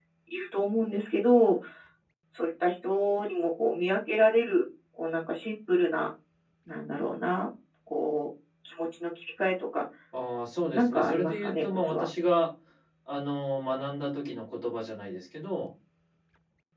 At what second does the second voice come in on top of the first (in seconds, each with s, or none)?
10.7 s